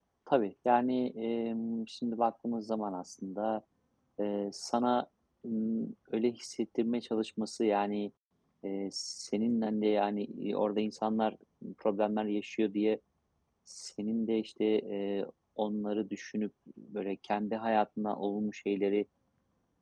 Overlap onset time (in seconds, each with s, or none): none